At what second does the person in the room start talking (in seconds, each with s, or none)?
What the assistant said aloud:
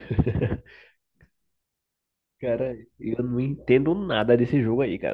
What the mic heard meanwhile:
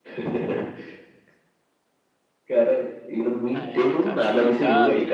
3.5 s